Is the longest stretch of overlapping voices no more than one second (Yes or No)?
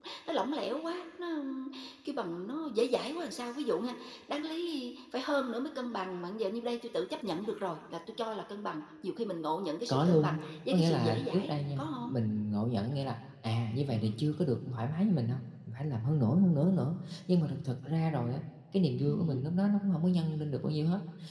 No